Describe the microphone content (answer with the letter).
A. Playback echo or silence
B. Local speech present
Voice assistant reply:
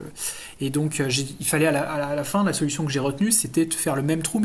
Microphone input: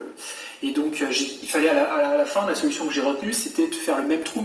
A